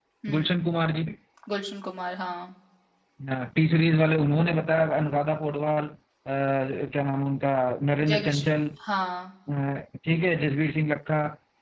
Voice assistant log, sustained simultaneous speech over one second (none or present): none